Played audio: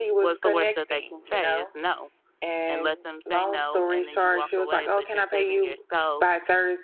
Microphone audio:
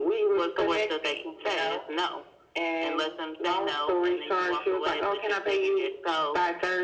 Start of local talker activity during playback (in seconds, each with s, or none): none